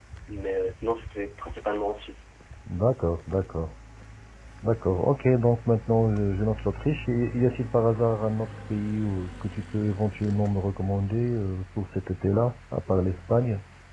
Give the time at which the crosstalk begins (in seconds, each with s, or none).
none